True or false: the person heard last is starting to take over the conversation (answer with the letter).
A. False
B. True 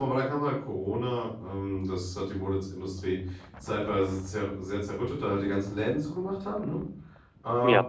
A